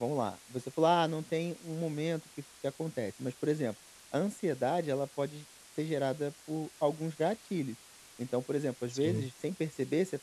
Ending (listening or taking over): listening